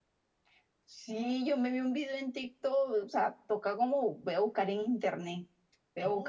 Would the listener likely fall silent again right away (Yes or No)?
No